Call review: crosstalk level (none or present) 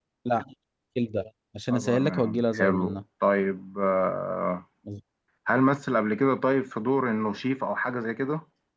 present